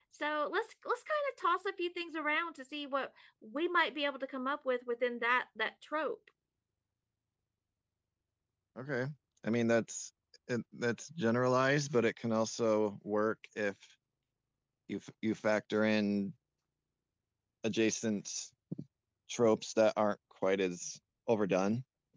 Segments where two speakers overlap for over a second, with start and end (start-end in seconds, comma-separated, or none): none